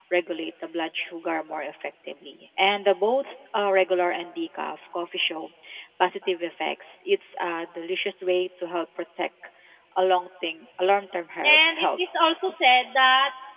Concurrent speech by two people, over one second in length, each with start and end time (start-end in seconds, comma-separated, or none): none